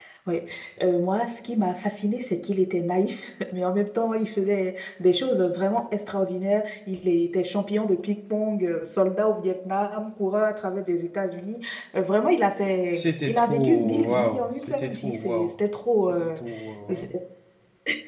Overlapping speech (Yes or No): Yes